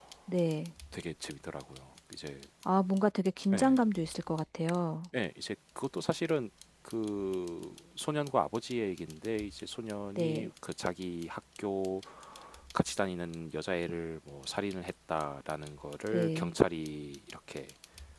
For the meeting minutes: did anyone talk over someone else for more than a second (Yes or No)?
No